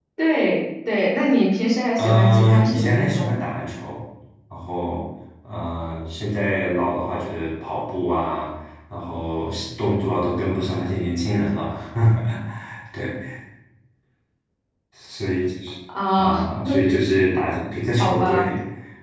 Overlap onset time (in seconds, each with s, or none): 2.0 s